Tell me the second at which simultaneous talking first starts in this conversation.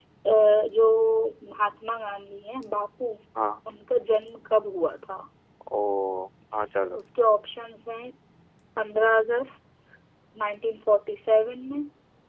none

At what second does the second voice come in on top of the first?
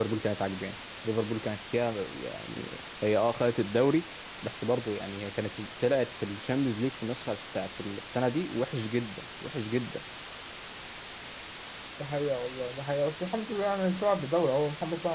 none

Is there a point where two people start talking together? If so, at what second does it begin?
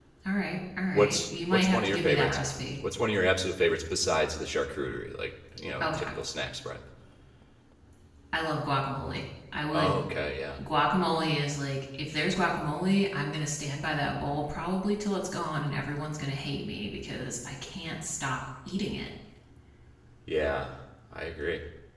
0.9 s

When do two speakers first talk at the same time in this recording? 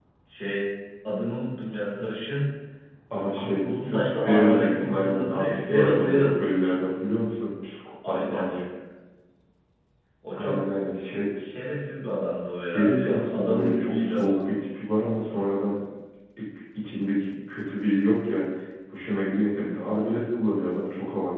3.2 s

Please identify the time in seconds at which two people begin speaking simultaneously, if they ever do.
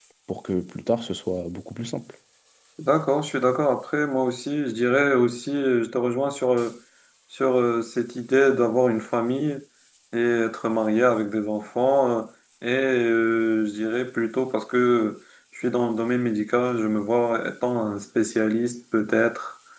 none

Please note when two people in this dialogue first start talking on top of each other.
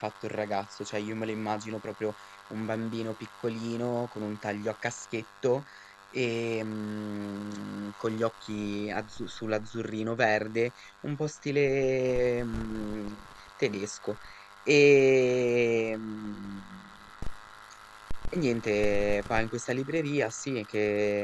none

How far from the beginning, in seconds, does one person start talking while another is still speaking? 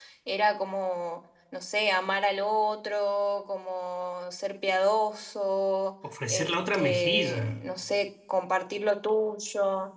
6.3 s

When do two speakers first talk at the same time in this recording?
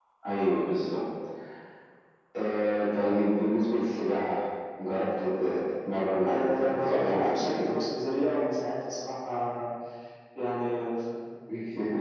6.3 s

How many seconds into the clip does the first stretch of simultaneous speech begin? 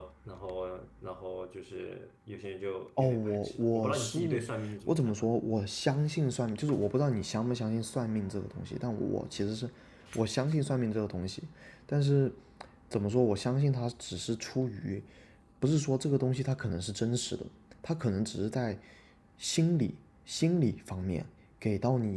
3.0 s

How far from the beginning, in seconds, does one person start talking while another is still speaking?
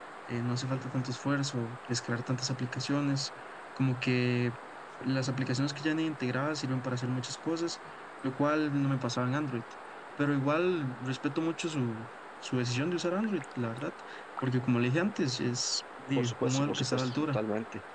16.1 s

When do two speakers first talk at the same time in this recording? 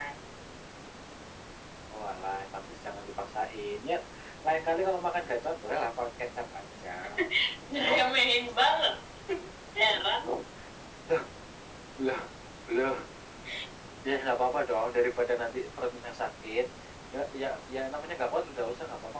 none

